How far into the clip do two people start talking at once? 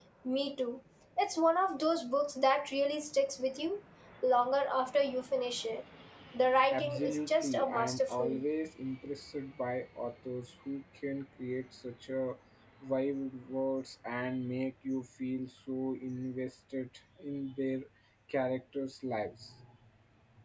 7 s

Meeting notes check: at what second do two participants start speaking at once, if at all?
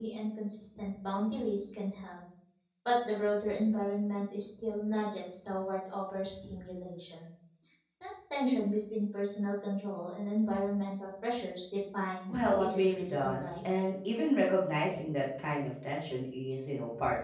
12 s

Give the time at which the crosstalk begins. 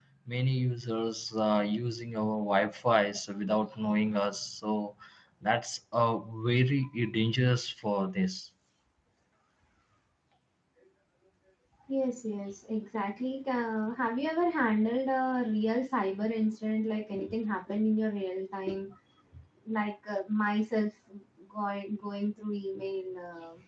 none

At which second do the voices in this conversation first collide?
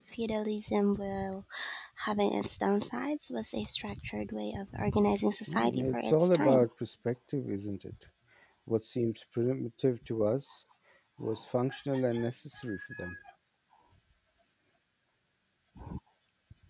5 s

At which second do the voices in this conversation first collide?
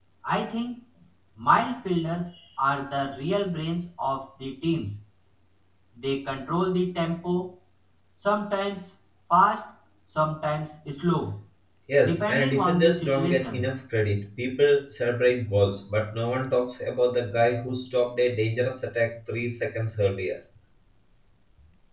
12 s

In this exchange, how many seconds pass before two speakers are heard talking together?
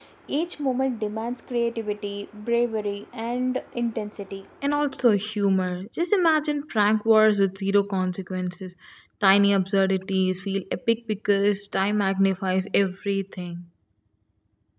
none

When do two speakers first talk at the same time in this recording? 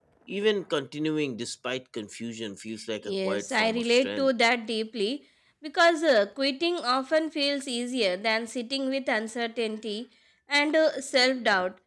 3 s

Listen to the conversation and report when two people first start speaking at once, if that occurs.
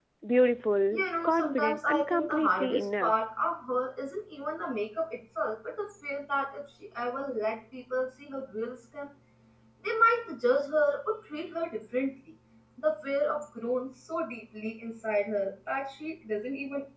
1 s

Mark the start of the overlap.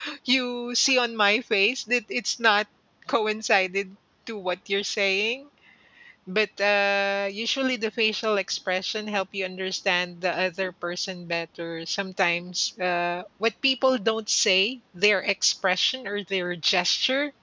none

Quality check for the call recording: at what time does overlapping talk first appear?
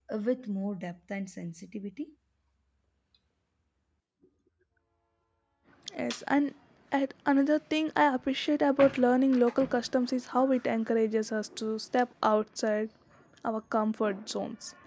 none

